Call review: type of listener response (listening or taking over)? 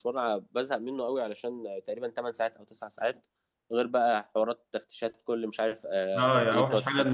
taking over